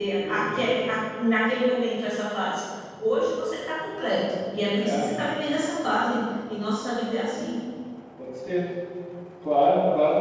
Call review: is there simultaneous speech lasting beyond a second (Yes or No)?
No